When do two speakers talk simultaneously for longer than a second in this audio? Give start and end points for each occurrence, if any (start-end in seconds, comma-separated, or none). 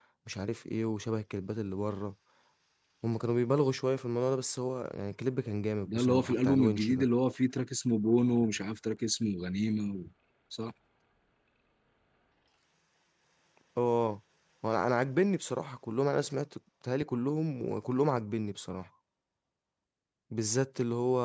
5.9-7.1